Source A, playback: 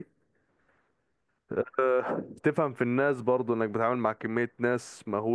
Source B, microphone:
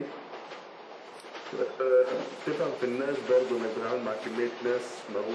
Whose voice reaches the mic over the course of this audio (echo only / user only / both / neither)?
echo only